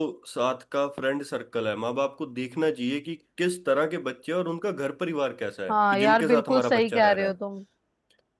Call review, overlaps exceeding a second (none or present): present